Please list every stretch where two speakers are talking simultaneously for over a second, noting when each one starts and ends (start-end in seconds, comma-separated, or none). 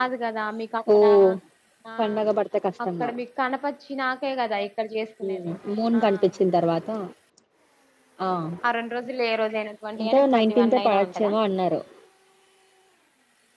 10.0-11.3